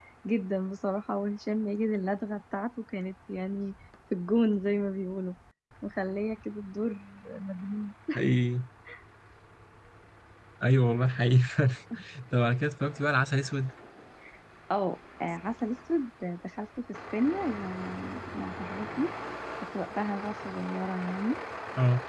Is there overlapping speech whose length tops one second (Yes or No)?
No